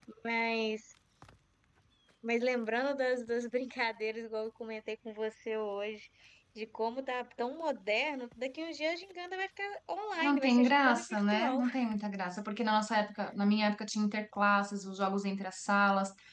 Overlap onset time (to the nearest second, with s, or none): 10 s